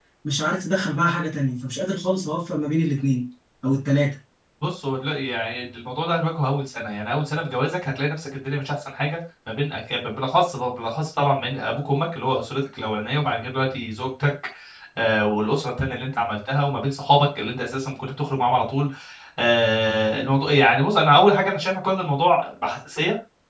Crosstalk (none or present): none